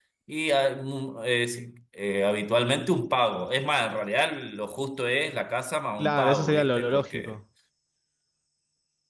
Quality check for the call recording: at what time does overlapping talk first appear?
6 s

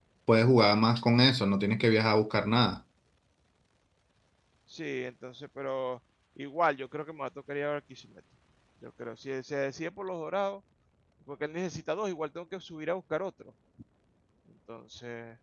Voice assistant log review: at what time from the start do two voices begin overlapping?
none

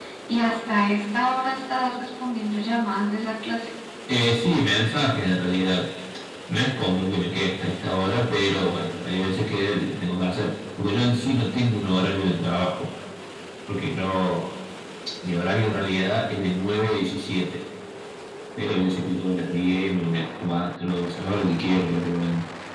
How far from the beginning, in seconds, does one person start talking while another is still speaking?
none

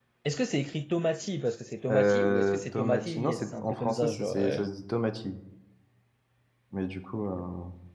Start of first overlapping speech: 2 s

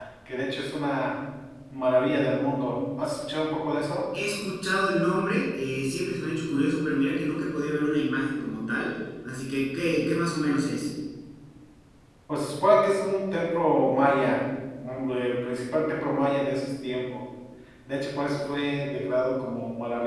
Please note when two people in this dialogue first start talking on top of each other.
none

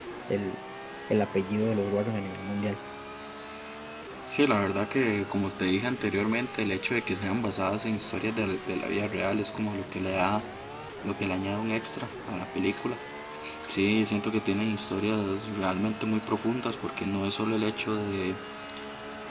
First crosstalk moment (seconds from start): none

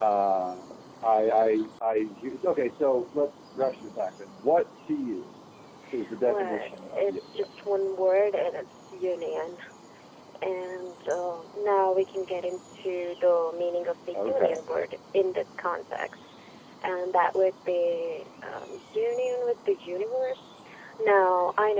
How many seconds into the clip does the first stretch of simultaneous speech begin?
6 s

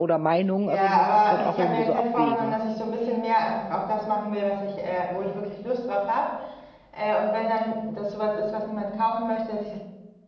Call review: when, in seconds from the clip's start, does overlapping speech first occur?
1 s

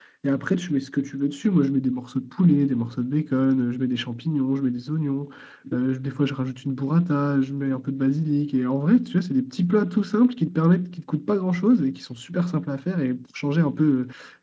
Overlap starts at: none

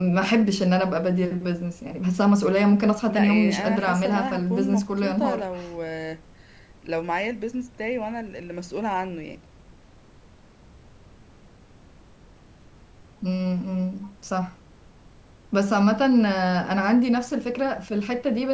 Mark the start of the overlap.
3 s

